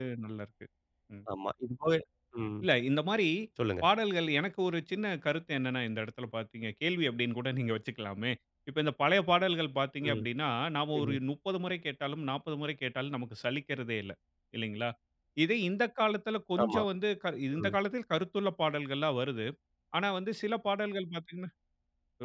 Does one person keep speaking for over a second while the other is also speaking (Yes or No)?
No